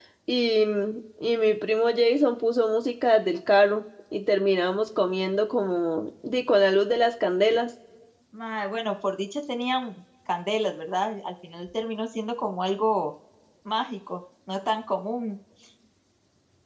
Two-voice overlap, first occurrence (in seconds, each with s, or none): none